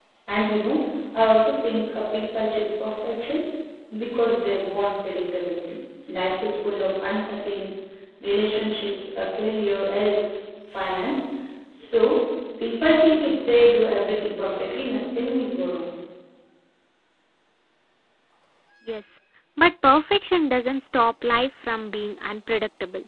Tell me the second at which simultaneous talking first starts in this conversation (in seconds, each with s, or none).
none